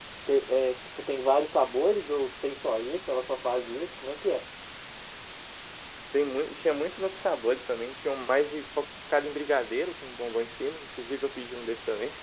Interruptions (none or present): none